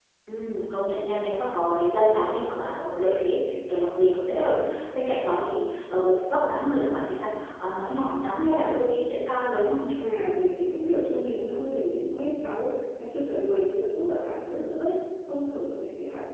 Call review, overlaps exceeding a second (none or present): none